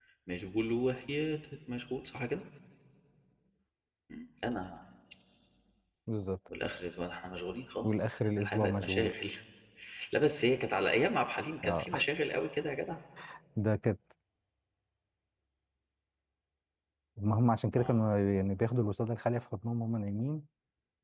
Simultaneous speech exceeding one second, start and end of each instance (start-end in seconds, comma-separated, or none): 7.8-9.1